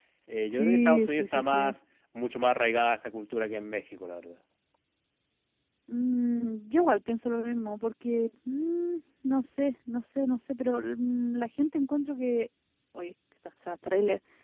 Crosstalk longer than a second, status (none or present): present